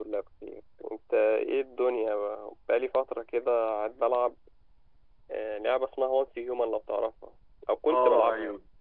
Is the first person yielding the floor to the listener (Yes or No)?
Yes